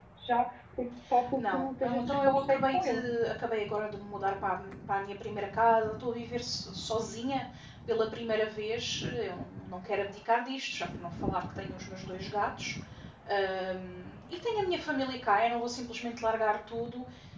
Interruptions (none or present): present